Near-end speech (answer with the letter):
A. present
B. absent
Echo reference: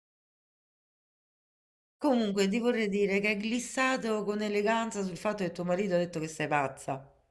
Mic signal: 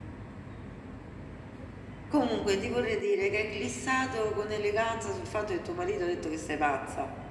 B